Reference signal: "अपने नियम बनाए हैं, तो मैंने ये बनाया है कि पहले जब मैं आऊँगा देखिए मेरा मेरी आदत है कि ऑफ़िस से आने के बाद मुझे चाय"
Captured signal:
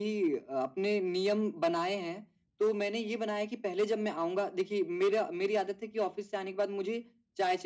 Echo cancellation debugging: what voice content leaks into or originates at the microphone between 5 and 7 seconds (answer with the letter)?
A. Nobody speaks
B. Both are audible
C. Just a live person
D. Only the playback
D